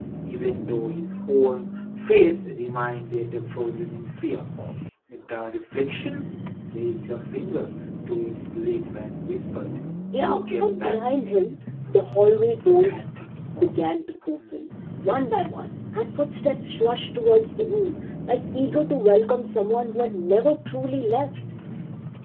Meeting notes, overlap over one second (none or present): present